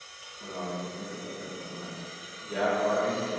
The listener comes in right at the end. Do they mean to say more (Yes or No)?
No